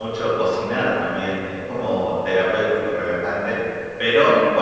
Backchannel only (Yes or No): Yes